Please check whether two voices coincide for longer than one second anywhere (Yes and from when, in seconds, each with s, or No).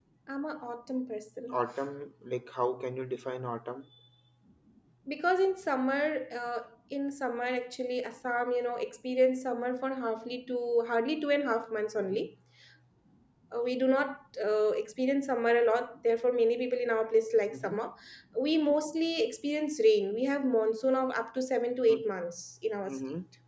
No